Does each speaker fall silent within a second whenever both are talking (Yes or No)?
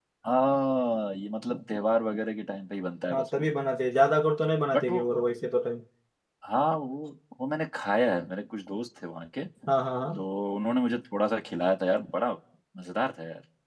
Yes